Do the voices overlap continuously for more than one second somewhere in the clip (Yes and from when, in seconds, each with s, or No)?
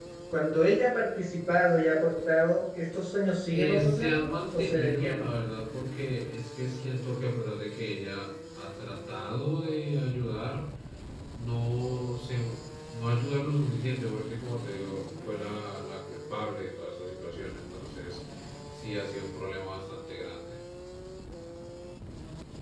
Yes, from 3.5 s